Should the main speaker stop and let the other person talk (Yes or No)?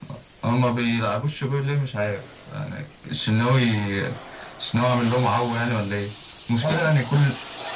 No